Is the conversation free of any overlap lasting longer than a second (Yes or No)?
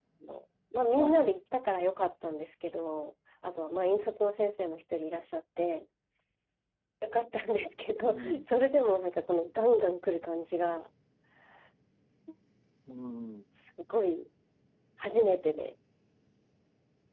Yes